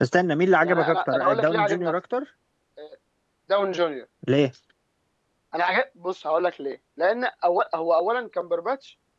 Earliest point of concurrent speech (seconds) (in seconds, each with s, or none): 0.6 s